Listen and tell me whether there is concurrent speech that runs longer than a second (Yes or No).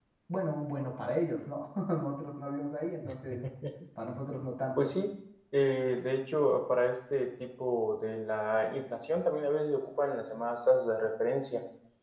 No